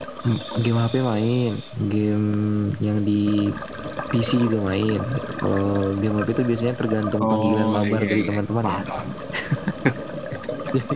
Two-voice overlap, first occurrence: 7.2 s

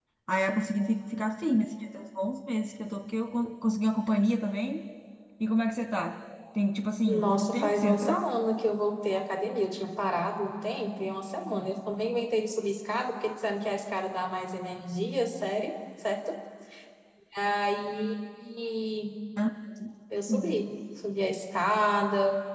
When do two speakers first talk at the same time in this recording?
7.1 s

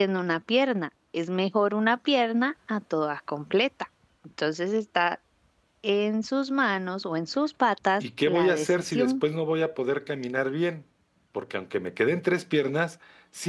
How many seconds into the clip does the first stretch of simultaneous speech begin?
8.0 s

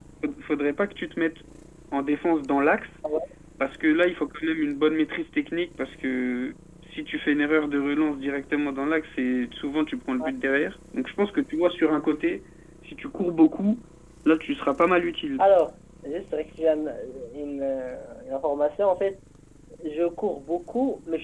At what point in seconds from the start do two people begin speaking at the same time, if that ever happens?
none

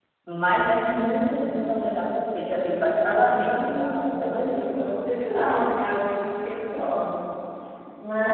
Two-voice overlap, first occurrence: 3.2 s

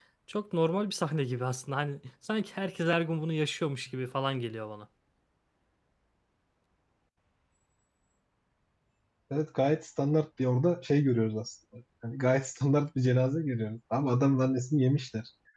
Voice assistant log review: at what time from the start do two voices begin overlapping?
none

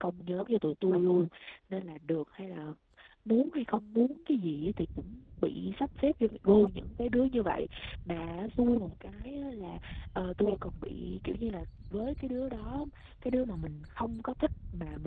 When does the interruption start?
none

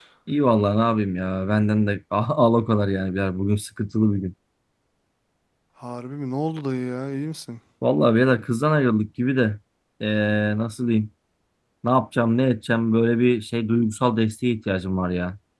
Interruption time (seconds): none

